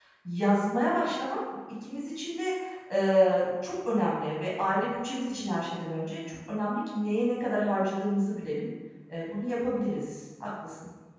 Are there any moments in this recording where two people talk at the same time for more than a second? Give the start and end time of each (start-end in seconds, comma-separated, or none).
none